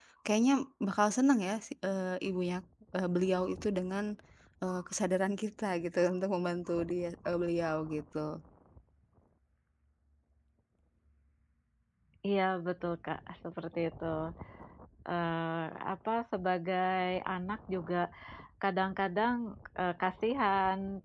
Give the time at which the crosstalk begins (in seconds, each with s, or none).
none